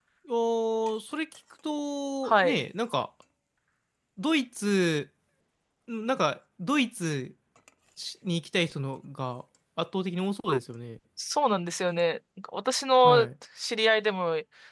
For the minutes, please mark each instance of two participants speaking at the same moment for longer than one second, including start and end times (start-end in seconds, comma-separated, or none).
none